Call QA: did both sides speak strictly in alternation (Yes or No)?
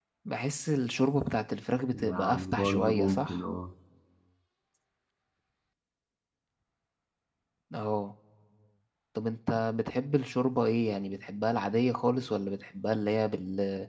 No